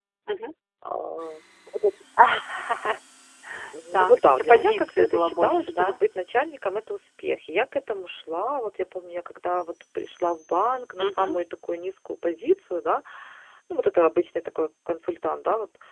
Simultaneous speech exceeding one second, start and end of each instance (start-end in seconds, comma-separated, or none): 3.9-6.0